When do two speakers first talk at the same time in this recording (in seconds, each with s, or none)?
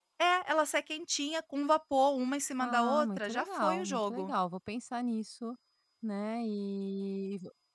2.6 s